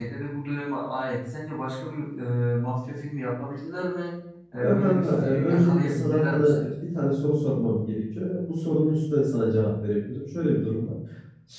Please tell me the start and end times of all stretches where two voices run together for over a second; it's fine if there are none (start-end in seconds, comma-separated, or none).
4.6-6.7